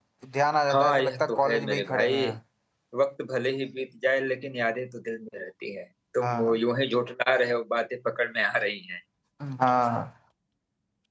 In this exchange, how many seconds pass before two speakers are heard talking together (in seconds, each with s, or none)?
0.7 s